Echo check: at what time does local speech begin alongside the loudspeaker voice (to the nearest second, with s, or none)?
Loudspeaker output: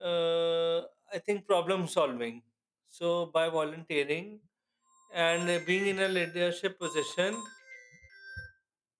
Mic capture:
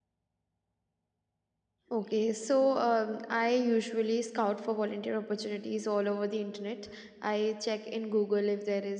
2 s